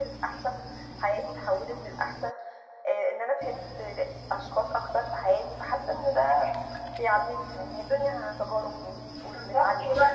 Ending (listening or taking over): taking over